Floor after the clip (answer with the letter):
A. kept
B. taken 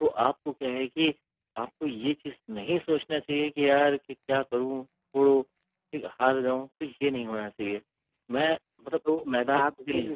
B